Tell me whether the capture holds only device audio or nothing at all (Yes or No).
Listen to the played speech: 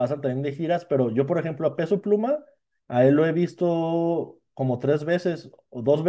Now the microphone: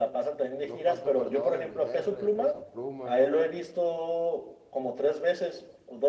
No